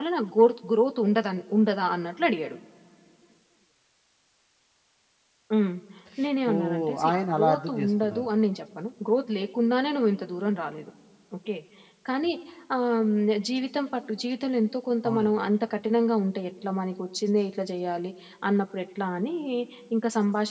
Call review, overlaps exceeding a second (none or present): present